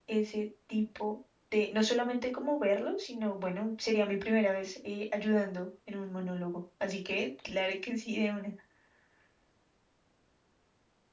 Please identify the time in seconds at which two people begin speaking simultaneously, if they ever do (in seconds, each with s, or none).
none